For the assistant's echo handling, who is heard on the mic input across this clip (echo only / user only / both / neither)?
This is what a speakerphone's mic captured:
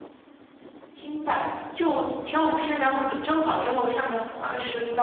user only